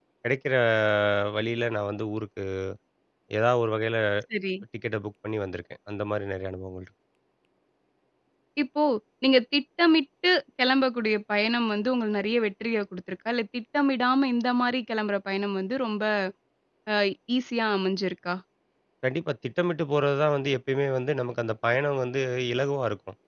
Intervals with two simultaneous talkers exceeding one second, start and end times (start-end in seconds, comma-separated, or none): none